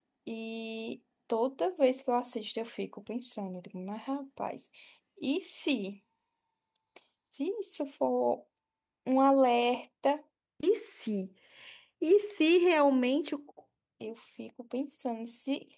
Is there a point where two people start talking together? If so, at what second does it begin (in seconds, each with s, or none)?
none